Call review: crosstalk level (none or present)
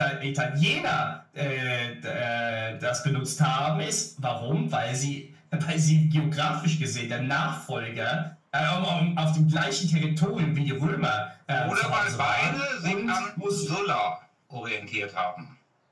present